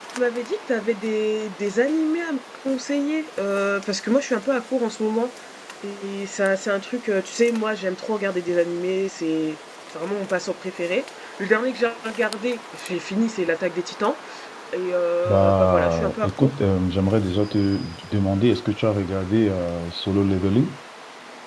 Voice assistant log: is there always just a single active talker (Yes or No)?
No